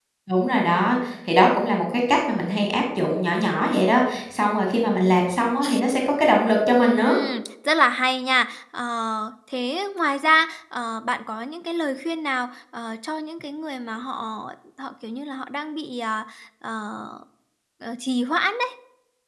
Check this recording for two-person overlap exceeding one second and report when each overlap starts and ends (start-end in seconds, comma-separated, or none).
none